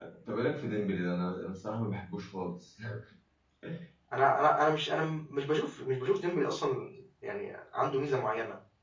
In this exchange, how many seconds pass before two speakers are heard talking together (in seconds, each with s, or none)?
none